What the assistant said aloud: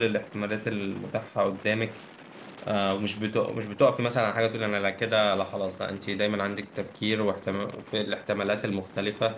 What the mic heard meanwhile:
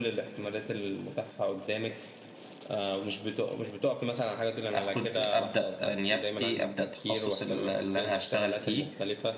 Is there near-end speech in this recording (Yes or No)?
Yes